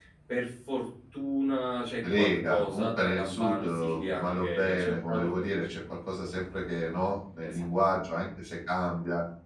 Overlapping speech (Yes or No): Yes